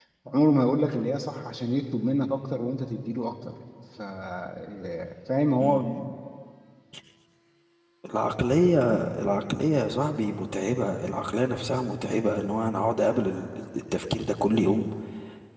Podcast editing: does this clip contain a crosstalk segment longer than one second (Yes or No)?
No